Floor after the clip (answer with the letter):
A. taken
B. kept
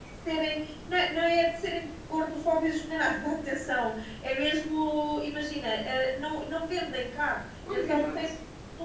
B